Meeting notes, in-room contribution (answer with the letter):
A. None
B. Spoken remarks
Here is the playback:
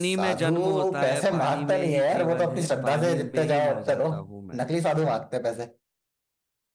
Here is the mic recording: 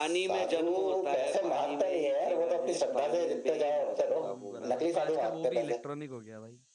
B